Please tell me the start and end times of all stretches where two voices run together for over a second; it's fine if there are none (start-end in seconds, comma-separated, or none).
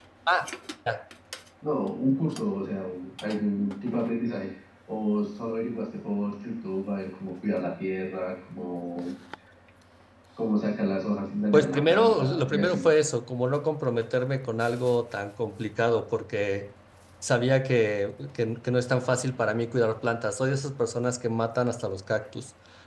11.5-12.8